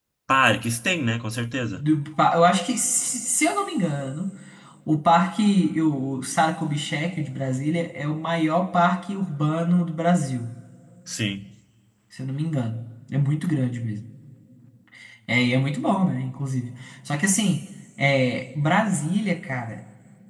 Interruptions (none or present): none